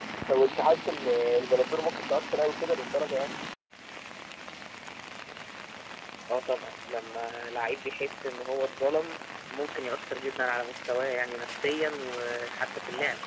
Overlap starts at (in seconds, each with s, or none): none